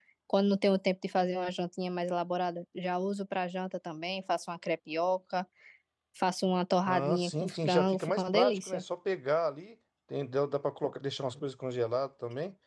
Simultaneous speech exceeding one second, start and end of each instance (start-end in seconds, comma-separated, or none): 6.9-8.8